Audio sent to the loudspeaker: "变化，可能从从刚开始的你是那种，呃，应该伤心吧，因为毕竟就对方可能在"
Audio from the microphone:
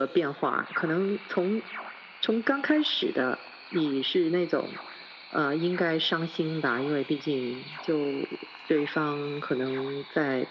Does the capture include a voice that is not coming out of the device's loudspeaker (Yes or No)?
No